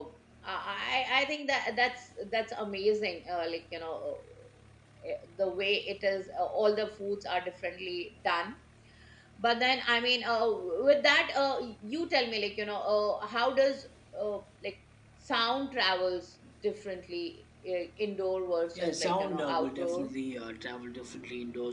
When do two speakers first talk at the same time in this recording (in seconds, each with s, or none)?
18.8 s